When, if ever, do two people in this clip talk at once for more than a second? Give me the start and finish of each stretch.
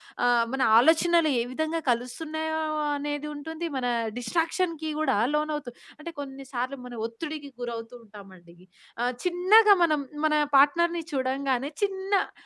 none

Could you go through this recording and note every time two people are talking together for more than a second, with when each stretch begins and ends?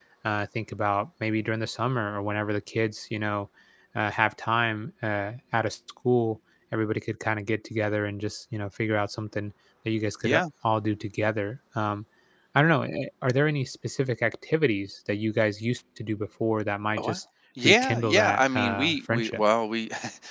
17.6-19.4

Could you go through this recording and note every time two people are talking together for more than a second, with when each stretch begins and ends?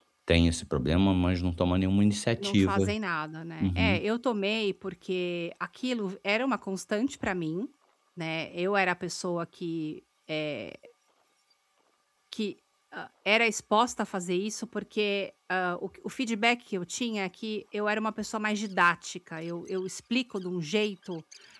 none

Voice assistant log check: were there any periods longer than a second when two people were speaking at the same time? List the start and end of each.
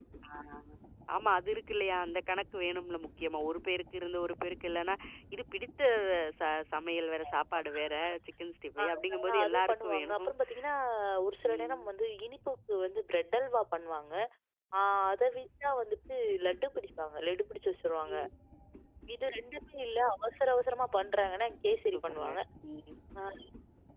8.8-10.3

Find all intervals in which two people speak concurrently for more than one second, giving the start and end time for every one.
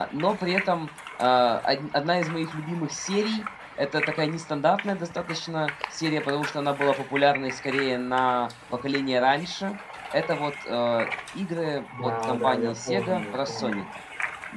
12.0-13.8

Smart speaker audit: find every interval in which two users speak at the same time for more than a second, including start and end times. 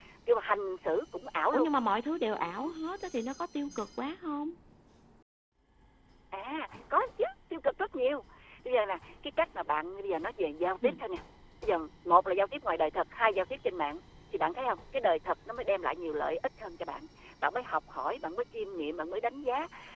none

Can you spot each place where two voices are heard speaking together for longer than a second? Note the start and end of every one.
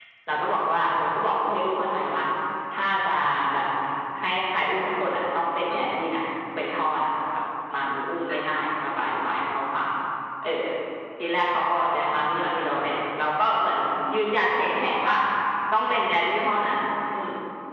none

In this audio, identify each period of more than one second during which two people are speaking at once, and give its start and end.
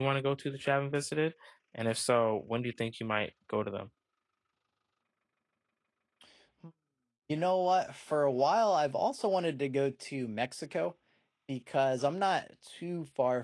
none

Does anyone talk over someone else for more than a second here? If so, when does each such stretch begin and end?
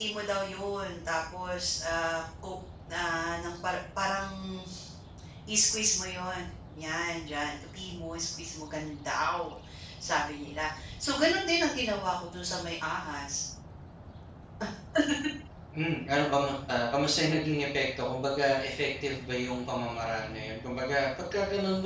none

